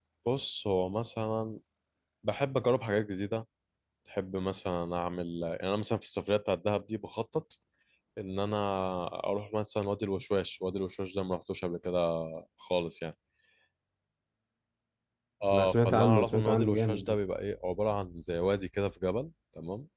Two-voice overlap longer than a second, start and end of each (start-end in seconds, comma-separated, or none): 15.5-17.2